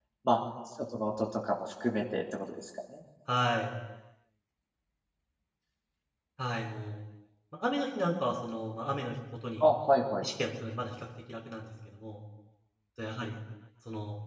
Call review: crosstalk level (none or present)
none